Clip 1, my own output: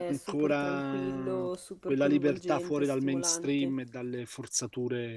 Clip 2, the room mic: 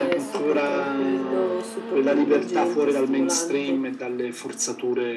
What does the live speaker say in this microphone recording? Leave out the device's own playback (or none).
none